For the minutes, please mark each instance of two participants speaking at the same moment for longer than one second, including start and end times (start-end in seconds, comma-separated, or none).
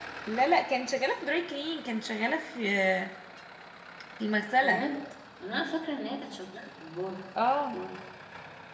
none